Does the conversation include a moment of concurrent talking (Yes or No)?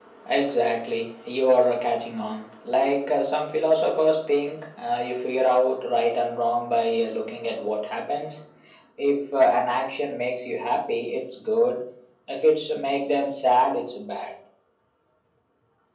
No